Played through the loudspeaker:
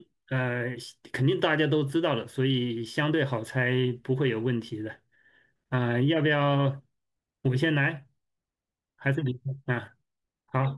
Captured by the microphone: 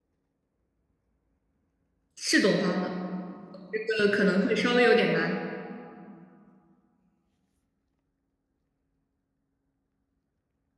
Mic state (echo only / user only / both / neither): user only